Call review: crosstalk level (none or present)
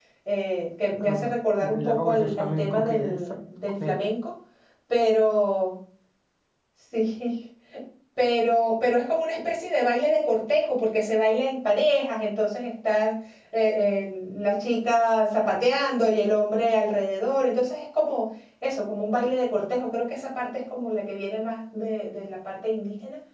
present